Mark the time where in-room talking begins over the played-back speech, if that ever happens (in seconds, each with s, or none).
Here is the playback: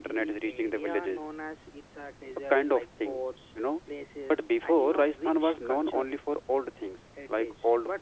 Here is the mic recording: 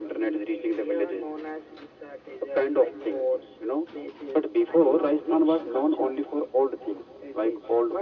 none